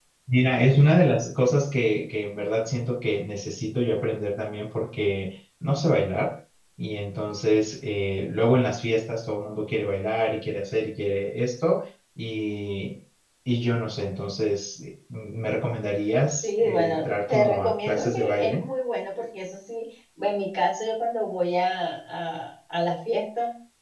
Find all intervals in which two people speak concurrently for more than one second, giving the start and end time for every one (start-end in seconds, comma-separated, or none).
16.4-18.6